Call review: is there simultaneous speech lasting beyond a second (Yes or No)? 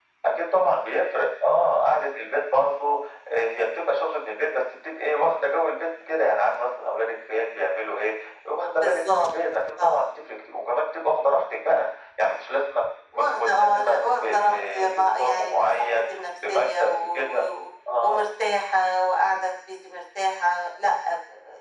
Yes